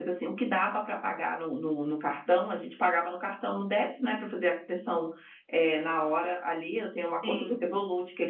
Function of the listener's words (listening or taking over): listening